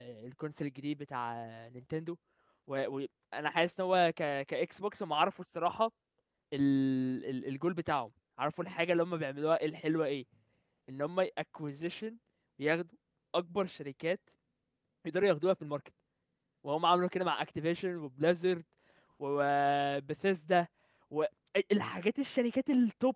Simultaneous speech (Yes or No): No